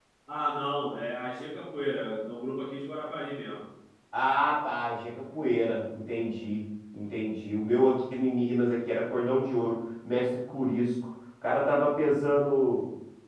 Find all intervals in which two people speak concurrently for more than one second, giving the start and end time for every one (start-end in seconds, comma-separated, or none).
none